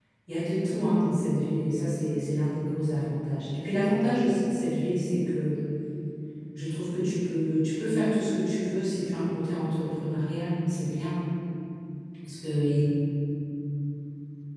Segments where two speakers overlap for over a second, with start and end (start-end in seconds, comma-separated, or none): none